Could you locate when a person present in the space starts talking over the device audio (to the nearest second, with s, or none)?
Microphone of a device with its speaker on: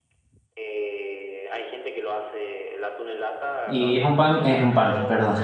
4 s